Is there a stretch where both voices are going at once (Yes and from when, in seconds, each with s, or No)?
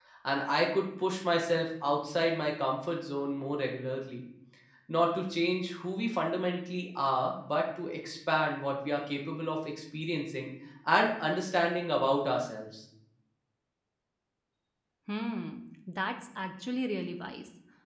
No